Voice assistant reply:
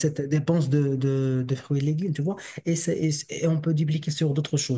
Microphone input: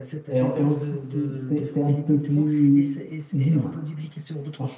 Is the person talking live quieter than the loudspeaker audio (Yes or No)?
No